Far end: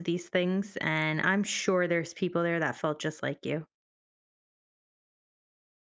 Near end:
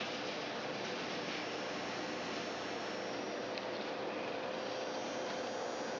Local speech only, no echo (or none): none